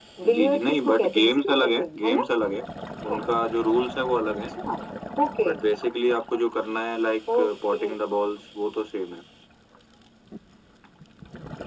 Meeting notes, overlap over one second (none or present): present